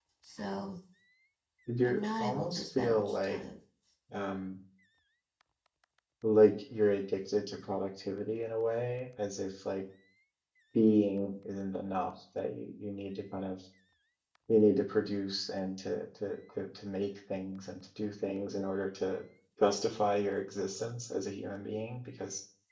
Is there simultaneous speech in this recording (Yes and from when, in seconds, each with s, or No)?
Yes, from 1.9 s